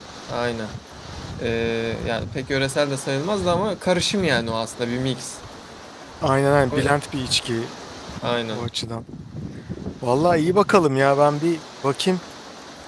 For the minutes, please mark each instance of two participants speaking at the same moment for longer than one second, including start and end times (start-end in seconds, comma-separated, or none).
none